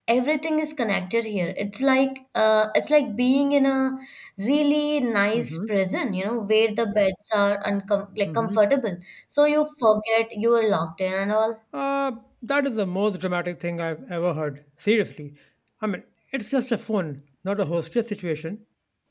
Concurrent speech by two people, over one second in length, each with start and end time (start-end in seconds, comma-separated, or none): none